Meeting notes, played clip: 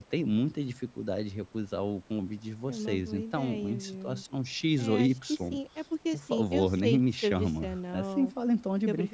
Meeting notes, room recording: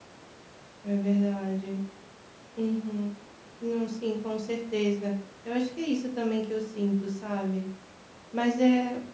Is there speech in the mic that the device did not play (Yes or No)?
Yes